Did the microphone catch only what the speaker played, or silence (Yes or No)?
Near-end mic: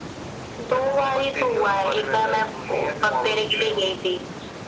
Yes